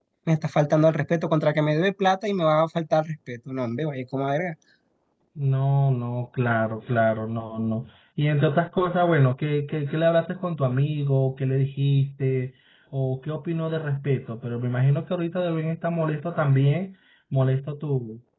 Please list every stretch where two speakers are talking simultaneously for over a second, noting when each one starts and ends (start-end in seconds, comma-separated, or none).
none